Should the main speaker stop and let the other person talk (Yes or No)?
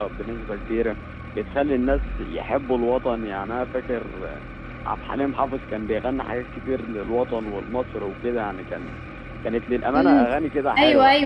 Yes